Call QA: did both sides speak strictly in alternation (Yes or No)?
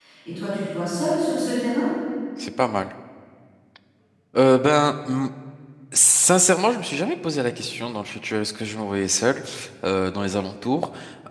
Yes